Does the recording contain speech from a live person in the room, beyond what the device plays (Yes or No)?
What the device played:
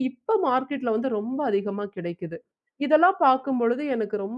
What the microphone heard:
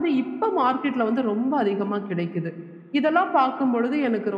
No